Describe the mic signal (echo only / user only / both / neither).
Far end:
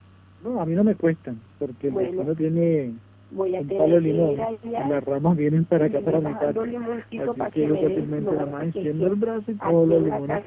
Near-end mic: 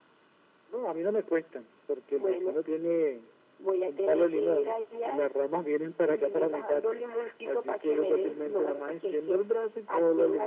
echo only